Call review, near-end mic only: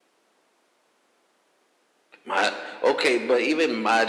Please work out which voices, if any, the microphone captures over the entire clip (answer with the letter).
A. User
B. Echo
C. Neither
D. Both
A